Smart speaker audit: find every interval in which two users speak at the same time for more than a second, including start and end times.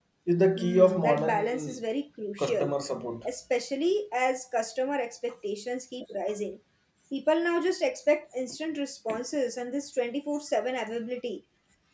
0.6-1.8

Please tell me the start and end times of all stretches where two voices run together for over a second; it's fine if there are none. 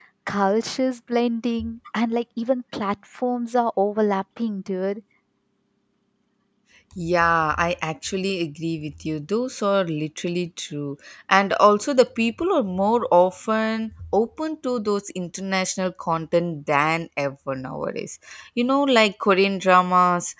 none

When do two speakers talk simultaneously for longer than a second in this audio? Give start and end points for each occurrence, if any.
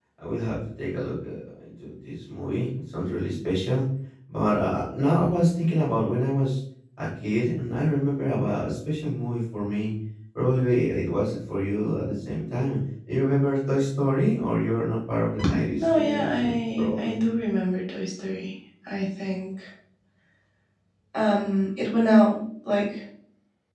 15.8-17.2

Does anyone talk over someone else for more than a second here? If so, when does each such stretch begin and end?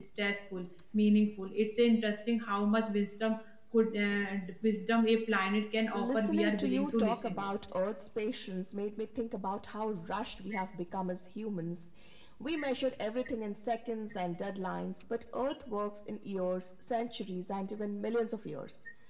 5.9-7.5

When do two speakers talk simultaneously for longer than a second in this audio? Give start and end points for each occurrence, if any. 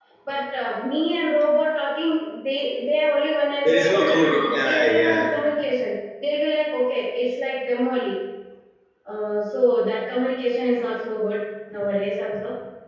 3.6-5.3

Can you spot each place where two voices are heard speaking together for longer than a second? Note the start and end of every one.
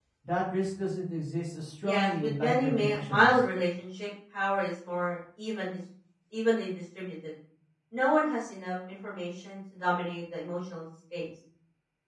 1.8-3.4

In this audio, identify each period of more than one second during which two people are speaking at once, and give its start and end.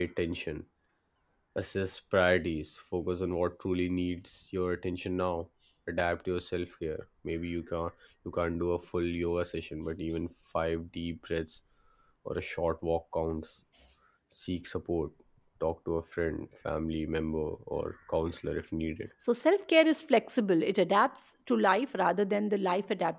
none

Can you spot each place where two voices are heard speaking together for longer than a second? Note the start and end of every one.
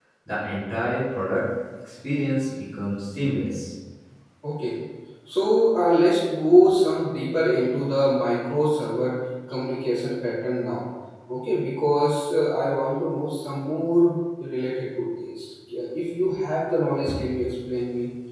none

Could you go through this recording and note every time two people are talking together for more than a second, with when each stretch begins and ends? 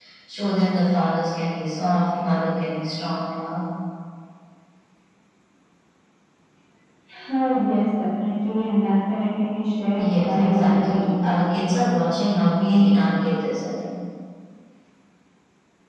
9.9-11.4

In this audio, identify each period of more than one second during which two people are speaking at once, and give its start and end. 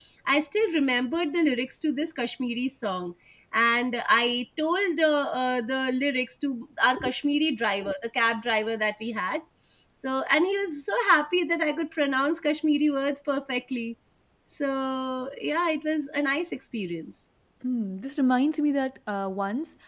none

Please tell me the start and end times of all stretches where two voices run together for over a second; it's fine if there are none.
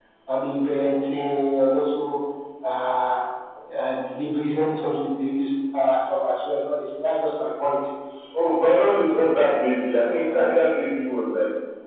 none

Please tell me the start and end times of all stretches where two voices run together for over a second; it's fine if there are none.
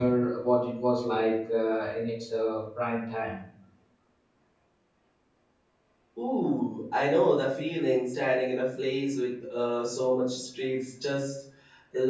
none

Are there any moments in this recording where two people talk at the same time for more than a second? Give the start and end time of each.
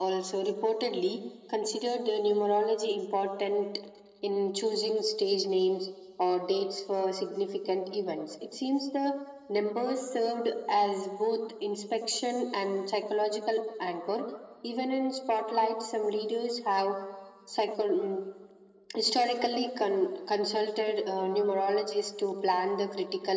none

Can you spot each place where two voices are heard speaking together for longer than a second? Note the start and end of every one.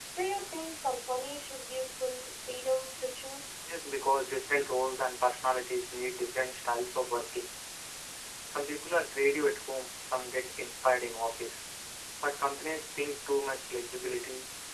none

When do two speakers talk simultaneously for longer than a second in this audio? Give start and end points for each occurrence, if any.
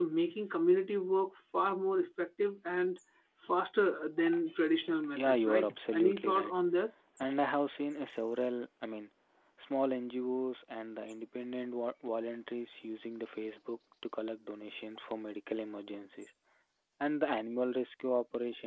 5.1-6.5

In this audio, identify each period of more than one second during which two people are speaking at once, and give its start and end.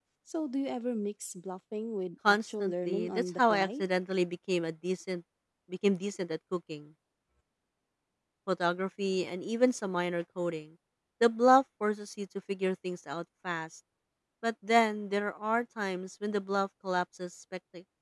2.3-3.8

